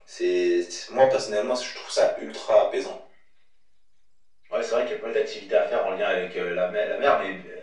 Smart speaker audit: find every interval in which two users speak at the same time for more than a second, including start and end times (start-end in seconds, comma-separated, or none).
none